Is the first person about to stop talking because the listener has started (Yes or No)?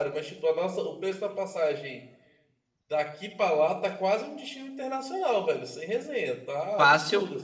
Yes